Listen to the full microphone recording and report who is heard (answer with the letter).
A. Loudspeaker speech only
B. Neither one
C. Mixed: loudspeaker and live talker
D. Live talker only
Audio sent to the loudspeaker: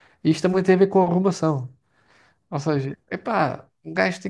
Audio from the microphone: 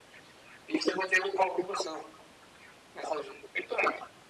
A